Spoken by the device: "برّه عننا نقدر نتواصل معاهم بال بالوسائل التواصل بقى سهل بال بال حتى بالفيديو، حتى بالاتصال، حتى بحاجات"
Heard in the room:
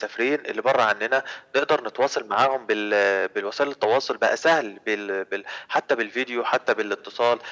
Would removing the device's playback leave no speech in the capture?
Yes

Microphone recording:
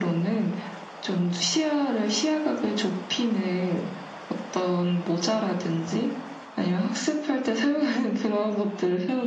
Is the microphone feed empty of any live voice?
Yes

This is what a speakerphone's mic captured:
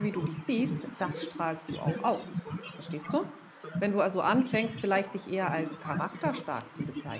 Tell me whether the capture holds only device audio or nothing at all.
No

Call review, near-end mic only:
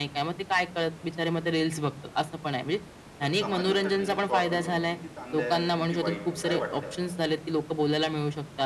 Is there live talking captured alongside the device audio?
Yes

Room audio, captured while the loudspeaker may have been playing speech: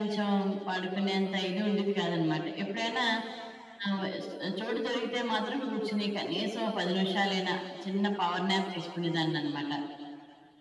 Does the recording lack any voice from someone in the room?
Yes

